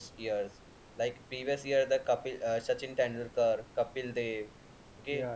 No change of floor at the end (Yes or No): Yes